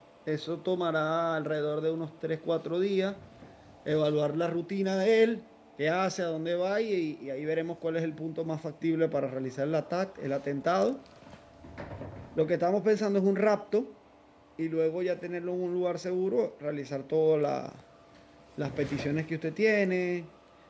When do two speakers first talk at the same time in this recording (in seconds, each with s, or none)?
none